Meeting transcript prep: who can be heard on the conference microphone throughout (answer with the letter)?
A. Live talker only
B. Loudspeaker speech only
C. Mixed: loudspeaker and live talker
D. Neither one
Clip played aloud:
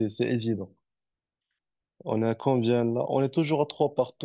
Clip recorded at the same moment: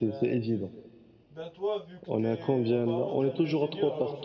C